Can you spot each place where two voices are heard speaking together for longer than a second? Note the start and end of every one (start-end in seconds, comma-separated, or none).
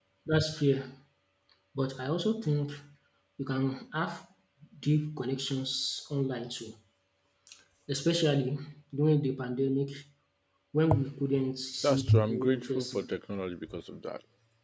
11.8-13.1